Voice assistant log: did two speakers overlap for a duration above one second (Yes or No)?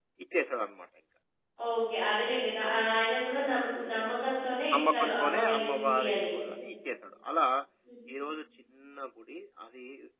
Yes